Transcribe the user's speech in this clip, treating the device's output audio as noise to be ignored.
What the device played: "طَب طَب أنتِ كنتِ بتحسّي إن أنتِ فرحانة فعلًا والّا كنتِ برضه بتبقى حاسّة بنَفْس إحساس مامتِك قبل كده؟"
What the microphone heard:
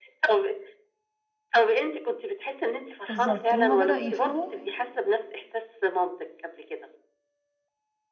بالضبط هُم بدأوا يفهموا

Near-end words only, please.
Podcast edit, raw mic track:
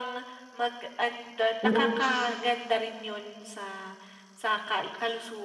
Pero pus

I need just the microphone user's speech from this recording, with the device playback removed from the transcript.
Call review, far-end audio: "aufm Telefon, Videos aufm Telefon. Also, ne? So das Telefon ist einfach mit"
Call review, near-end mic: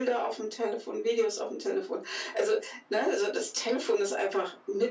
none

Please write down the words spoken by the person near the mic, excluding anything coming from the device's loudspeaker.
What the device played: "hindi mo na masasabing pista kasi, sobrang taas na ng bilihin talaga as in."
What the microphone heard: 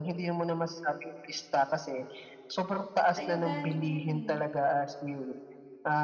sa'yo galing 'yan, eh.

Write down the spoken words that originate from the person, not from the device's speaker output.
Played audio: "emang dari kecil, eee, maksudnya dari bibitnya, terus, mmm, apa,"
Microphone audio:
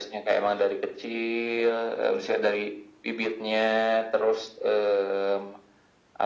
none

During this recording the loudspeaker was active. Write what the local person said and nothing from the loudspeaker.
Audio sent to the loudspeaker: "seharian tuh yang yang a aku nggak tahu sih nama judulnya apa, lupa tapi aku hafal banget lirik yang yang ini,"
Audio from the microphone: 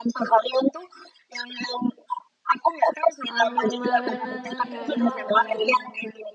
ano marinana ya itulah pokoknya.

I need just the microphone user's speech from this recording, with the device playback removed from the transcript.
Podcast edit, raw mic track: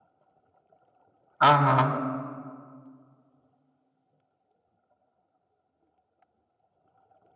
Aham.

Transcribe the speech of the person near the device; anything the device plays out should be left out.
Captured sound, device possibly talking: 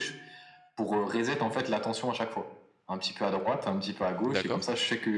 D'accord.

